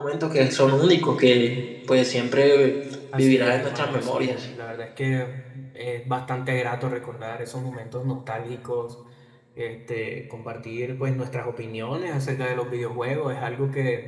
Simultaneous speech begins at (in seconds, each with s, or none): 3.2 s